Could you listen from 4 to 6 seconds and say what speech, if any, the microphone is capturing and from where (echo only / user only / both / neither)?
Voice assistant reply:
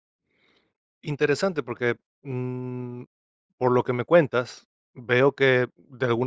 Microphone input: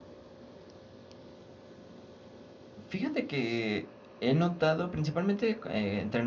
user only